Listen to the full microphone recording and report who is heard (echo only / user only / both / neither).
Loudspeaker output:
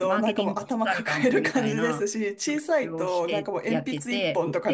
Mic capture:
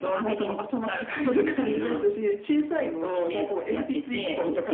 echo only